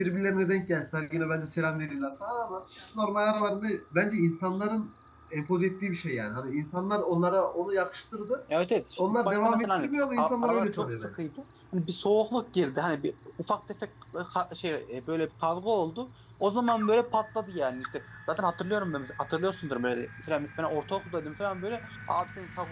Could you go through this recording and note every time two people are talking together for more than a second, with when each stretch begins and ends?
9.0-11.2

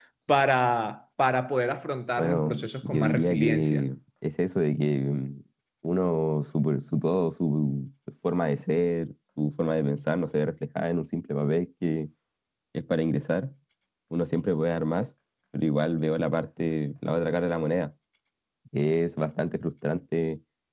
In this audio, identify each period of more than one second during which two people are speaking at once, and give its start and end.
2.2-3.8

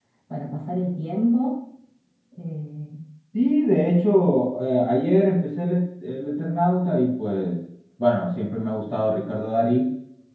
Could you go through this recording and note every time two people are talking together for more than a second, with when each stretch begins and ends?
none

